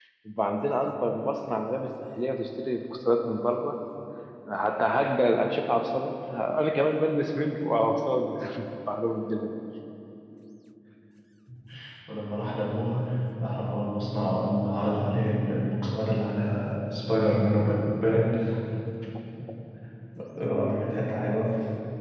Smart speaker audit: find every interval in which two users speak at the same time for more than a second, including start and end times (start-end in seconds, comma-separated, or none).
none